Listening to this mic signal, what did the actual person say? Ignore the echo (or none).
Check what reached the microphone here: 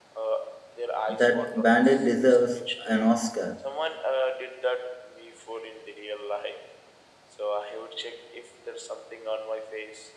That bandit deserves an Oscar.